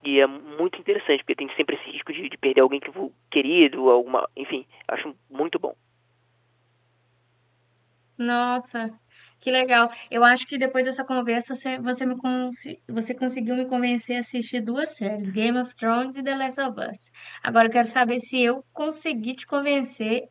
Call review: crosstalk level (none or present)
none